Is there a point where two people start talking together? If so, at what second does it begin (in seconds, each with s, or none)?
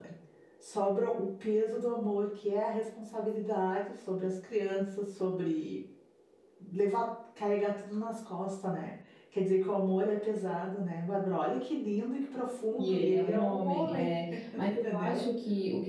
12.7 s